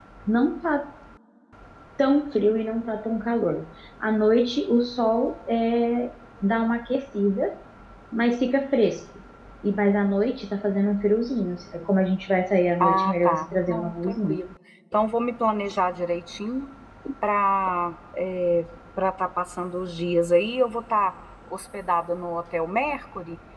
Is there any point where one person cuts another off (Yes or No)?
Yes